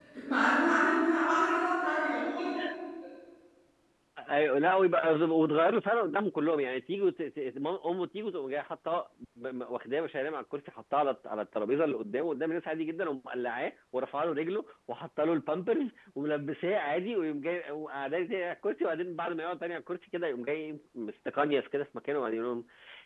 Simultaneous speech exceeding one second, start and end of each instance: none

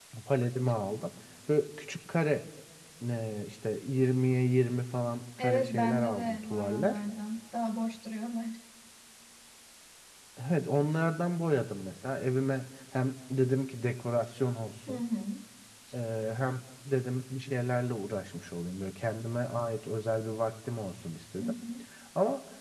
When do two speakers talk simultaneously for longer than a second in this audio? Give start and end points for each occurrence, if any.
5.4-7.0

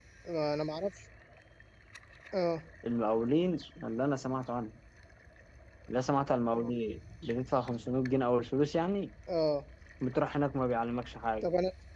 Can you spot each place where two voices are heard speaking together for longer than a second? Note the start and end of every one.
none

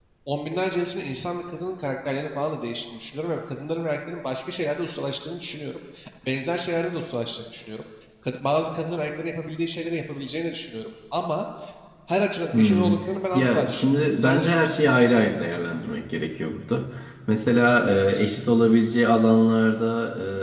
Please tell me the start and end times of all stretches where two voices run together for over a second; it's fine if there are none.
13.3-15.0

